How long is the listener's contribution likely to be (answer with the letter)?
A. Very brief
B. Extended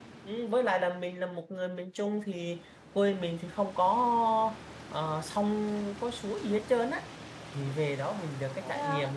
A